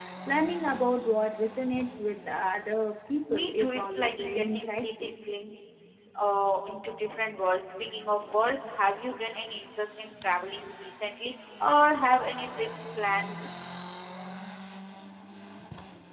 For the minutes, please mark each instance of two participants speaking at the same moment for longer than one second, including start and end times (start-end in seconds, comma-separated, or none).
3.3-5.1